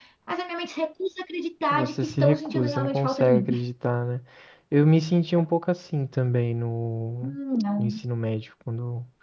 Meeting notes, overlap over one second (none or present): present